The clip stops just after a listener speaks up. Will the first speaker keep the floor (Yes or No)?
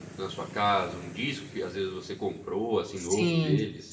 No